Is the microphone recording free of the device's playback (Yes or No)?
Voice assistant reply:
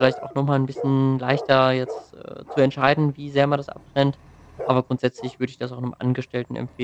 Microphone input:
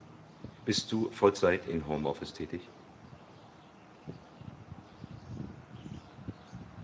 Yes